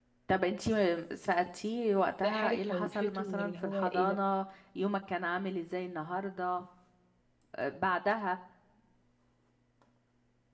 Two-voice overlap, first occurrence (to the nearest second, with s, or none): 2 s